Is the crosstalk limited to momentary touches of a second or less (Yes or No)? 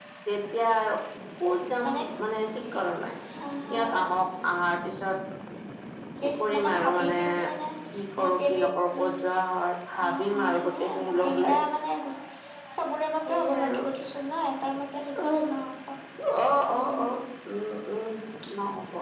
No